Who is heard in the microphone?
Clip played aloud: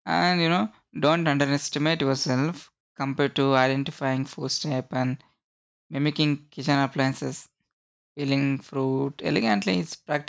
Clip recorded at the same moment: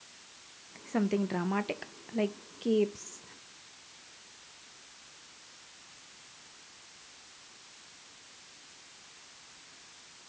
user only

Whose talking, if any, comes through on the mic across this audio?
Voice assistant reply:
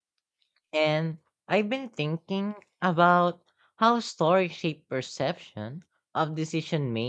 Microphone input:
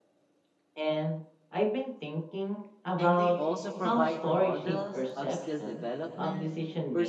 both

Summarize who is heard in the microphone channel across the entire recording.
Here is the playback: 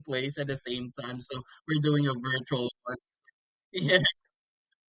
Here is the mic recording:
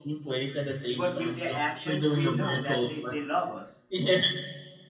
both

